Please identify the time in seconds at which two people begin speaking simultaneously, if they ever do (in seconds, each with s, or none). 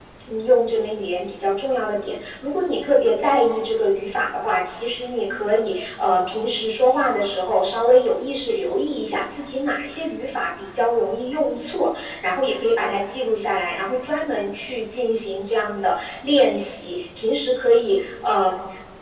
none